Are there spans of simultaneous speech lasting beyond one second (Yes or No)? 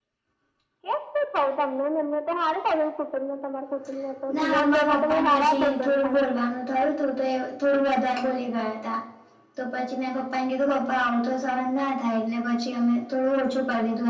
Yes